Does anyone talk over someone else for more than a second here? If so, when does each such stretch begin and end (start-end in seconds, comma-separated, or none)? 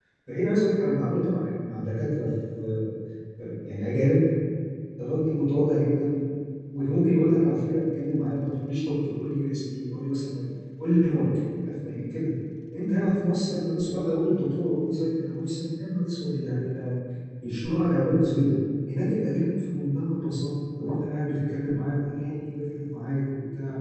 none